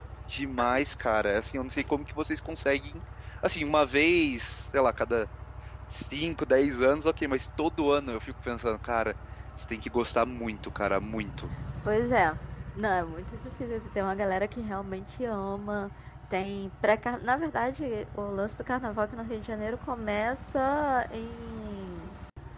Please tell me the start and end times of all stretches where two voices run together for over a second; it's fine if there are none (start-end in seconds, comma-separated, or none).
none